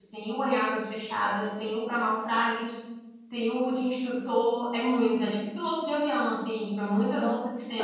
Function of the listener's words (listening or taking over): taking over